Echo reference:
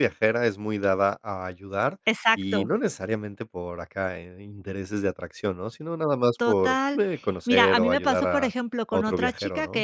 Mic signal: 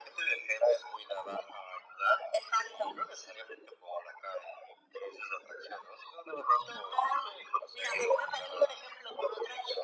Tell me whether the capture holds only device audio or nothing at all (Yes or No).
Yes